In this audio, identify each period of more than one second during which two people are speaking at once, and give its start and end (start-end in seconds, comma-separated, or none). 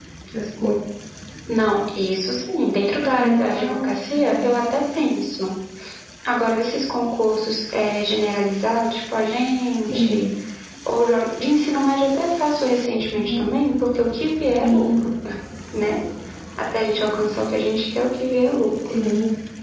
3.2-4.5